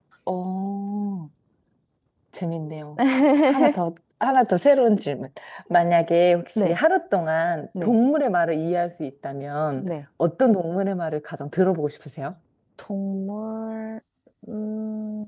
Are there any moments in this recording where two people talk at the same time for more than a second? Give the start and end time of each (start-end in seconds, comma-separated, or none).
none